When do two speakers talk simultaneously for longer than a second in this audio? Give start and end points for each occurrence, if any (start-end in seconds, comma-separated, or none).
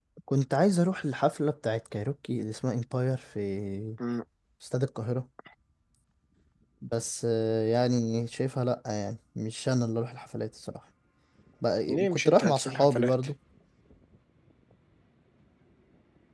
11.9-13.1